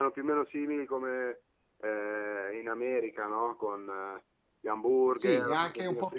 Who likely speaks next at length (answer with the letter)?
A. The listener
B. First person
A